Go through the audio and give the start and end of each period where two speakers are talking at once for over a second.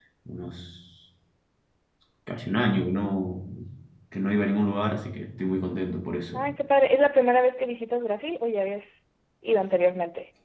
none

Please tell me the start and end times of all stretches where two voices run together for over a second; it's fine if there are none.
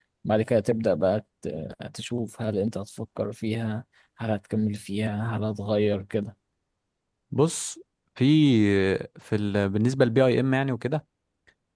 none

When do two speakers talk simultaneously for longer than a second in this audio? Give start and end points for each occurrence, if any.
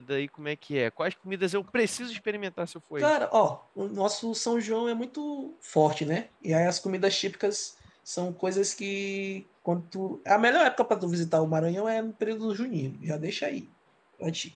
none

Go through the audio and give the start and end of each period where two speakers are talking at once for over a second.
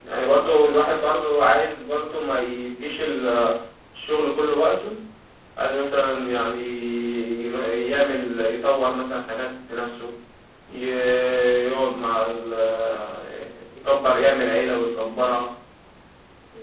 none

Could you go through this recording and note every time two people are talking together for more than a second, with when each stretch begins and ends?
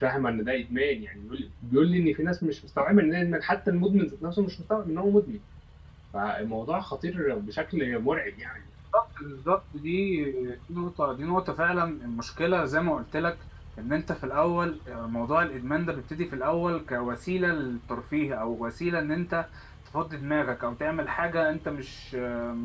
none

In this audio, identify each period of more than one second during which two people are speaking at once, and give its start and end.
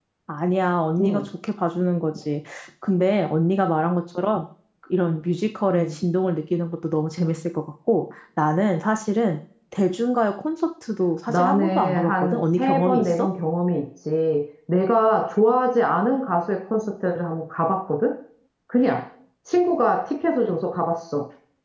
11.3-13.3

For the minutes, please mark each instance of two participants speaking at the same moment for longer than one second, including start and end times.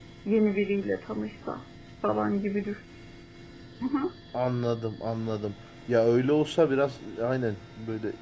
none

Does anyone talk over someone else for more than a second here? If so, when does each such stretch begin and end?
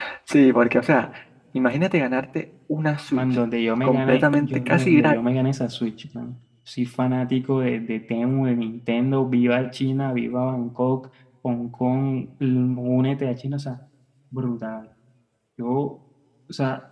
3.8-5.2

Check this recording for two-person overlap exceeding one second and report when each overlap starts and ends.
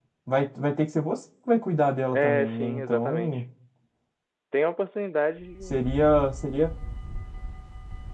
2.1-3.4

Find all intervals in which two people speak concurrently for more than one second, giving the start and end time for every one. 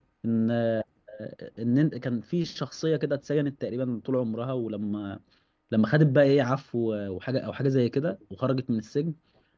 none

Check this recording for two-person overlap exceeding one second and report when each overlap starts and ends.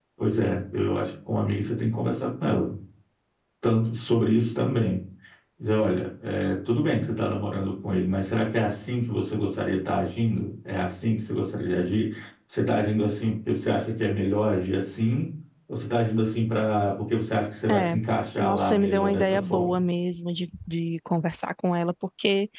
18.4-19.8

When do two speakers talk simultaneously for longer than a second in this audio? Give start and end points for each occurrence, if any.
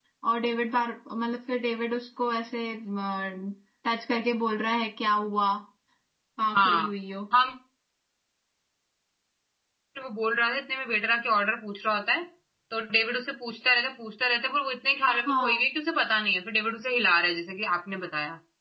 none

